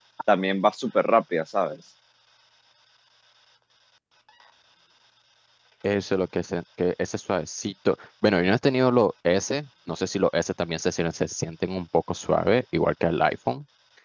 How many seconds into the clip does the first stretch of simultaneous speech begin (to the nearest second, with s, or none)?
none